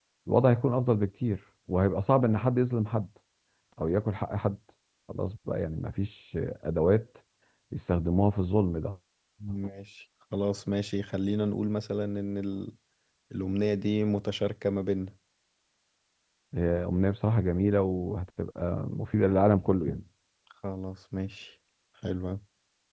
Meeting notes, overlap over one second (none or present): none